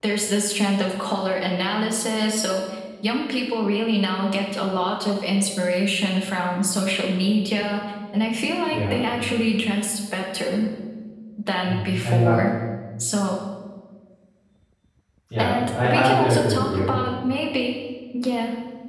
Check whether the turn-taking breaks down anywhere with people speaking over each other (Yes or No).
Yes